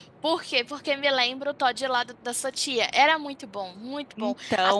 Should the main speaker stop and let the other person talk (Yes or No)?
No